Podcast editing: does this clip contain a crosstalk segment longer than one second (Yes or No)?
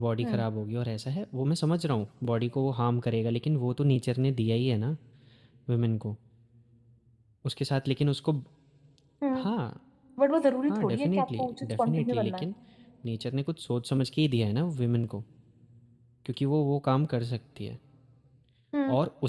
Yes